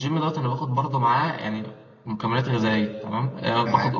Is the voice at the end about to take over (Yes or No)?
No